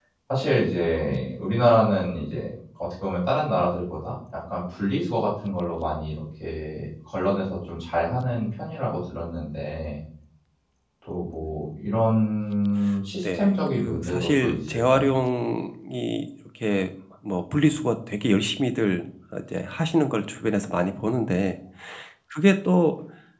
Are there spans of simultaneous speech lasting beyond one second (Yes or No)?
Yes